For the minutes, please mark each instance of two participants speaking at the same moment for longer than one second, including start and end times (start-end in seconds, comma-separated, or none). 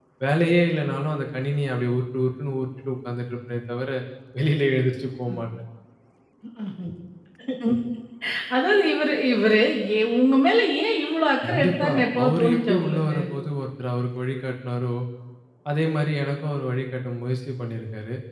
11.4-13.2